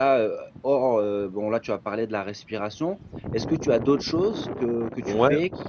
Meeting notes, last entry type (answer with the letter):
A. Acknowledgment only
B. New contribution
B